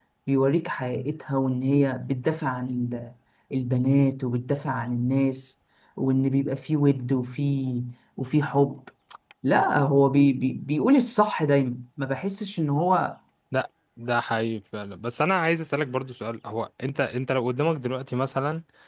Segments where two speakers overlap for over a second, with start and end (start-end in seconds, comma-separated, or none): none